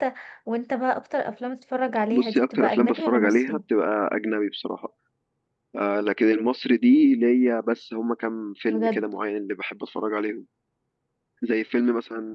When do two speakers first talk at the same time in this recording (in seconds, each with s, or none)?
2.1 s